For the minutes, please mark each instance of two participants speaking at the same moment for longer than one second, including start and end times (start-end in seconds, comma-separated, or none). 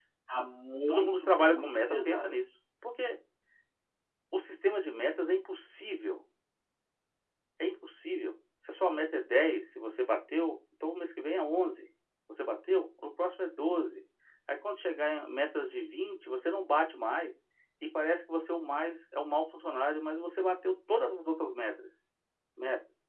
0.9-2.2